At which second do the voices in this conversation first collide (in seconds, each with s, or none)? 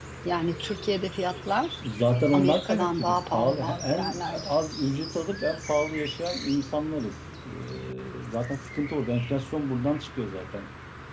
2.3 s